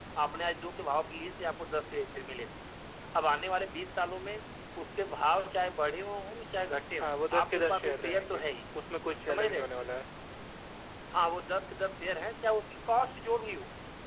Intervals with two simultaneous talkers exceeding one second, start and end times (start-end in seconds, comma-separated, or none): 7.0-8.4